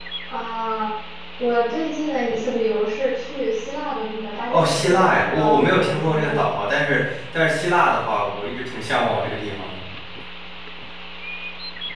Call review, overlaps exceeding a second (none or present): present